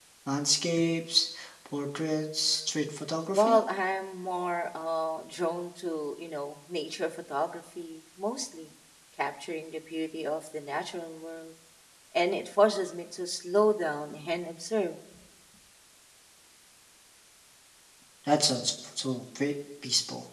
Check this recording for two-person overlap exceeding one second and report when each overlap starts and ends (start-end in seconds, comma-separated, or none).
none